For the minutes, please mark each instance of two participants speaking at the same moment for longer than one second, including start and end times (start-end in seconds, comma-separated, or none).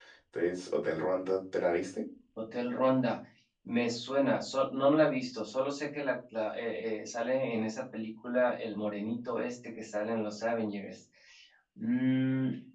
none